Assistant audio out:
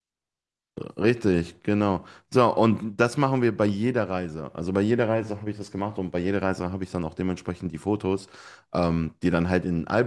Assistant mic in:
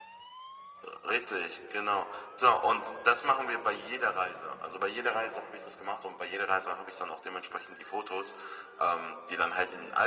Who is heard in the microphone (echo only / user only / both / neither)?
echo only